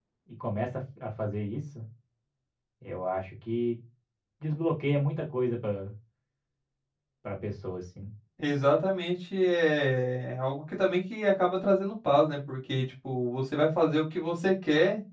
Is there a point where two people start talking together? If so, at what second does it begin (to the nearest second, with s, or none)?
none